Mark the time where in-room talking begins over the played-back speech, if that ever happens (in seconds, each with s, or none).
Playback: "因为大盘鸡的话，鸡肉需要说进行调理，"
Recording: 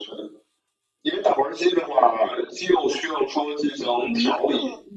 4.0 s